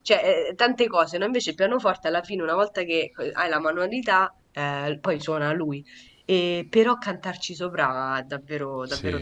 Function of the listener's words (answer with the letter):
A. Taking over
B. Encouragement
A